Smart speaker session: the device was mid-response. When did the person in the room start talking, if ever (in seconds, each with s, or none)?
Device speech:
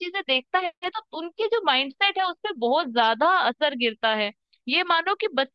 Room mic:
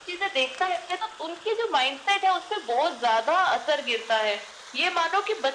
none